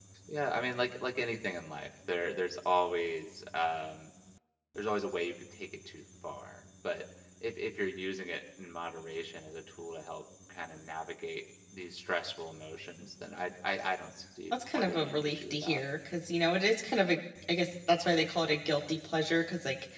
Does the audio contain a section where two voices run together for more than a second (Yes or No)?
Yes